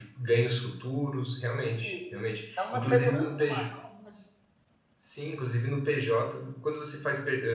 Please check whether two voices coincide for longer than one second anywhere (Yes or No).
Yes